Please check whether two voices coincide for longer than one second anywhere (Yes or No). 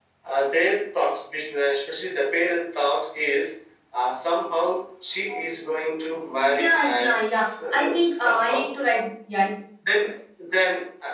Yes